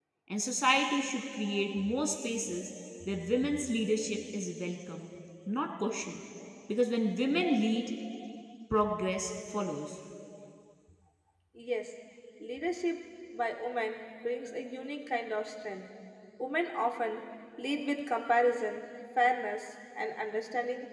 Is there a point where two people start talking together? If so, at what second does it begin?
none

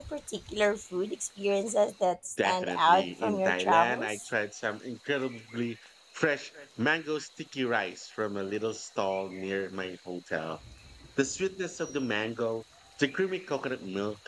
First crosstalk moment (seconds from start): 2.4 s

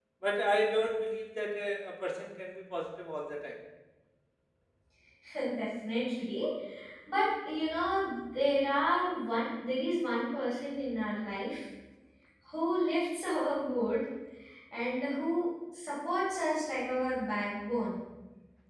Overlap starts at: none

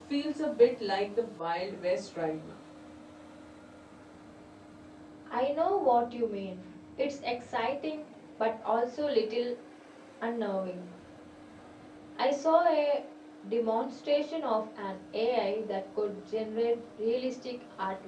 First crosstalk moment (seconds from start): none

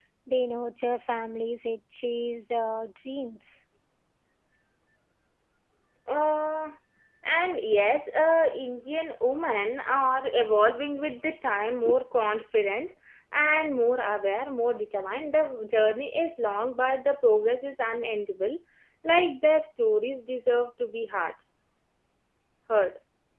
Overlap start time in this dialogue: none

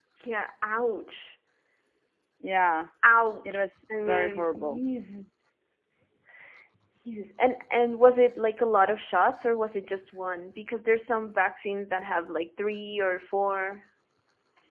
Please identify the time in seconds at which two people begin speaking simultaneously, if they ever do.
3.5 s

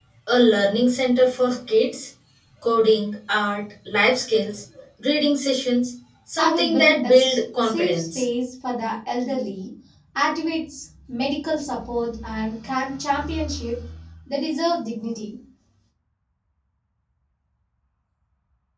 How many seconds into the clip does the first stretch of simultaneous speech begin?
6.4 s

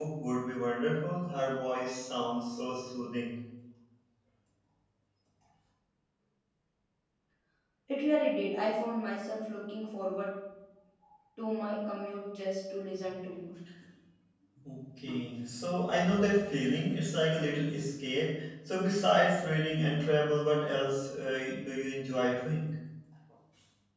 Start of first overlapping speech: none

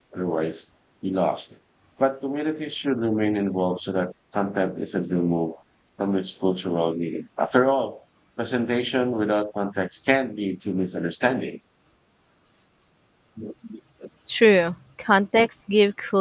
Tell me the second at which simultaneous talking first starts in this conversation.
none

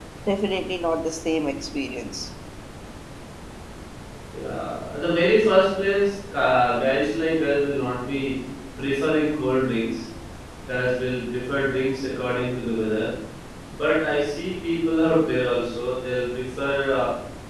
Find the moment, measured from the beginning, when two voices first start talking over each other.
none

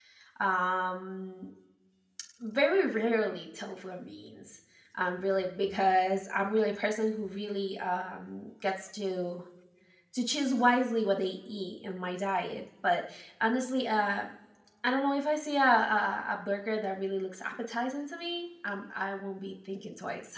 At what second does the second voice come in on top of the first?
none

